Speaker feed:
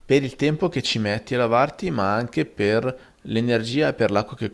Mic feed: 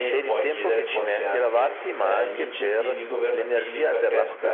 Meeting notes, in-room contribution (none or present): present